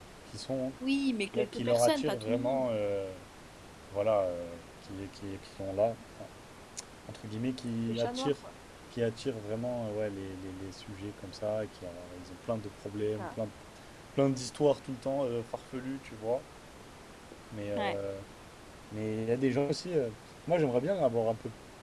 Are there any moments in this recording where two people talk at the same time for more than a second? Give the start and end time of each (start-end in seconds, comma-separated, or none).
1.3-2.6